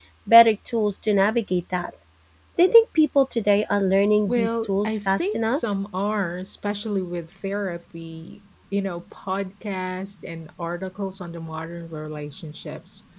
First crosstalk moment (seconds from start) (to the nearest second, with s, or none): 4 s